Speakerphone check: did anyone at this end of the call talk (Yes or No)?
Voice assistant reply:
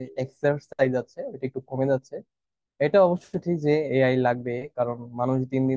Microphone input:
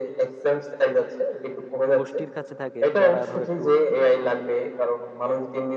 Yes